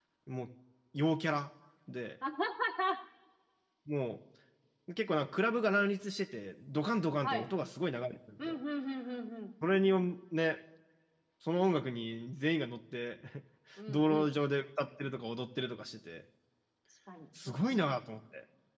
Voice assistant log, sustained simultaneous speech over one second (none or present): none